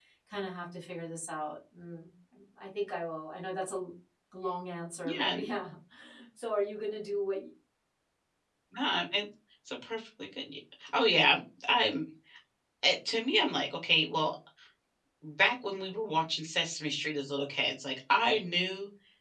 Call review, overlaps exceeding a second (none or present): none